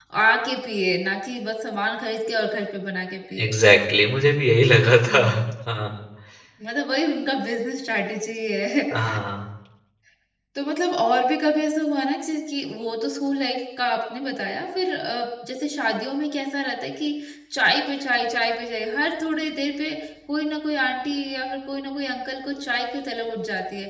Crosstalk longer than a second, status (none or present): none